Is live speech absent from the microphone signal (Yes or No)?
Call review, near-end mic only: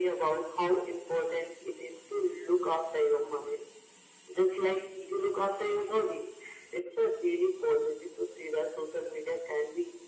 Yes